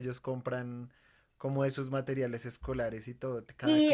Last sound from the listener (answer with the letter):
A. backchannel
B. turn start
B